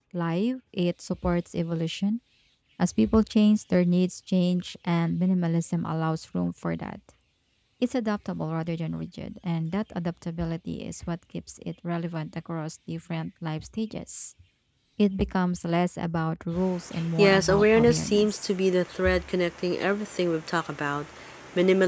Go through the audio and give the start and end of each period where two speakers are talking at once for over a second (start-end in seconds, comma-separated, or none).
17.2-18.4